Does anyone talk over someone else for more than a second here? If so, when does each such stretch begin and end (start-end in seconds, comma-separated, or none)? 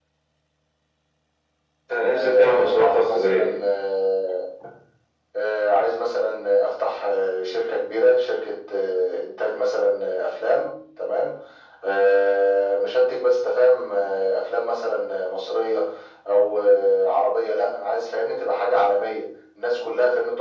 2.1-3.6